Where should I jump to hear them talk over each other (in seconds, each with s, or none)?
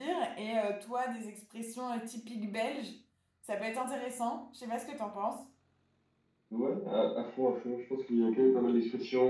none